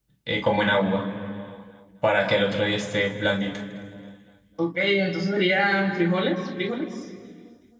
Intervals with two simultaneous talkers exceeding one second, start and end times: none

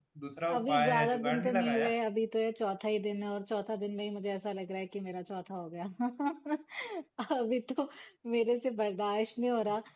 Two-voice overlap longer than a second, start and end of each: 0.6-1.9

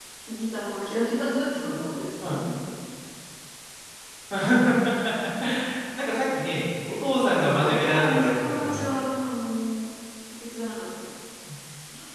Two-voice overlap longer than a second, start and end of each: 7.1-8.9

